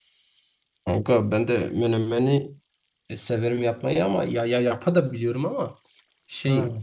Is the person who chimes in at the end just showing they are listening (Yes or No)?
Yes